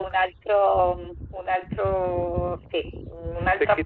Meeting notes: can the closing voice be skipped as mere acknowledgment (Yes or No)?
Yes